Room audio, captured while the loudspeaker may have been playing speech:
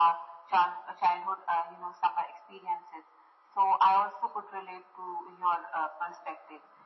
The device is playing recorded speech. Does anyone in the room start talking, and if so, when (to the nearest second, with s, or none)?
none